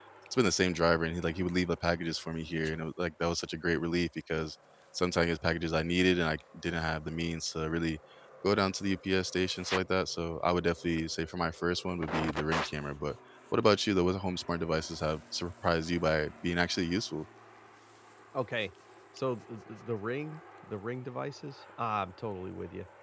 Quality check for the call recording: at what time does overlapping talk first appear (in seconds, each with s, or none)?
none